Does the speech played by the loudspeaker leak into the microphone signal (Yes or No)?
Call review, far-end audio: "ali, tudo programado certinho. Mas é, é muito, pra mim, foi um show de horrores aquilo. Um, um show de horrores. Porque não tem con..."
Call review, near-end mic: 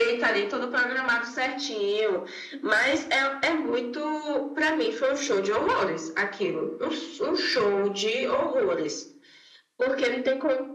Yes